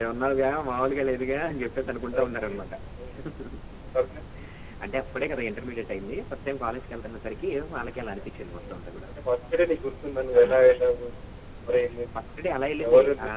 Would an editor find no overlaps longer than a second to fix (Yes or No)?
Yes